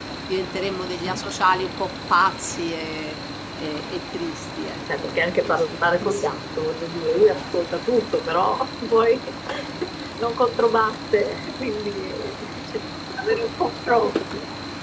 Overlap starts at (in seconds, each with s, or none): 4.9 s